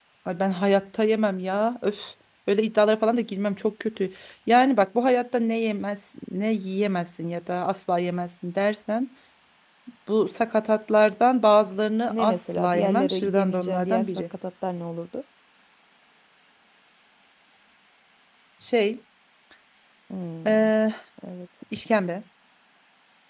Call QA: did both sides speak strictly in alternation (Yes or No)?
No